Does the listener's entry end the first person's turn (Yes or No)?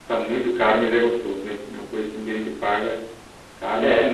Yes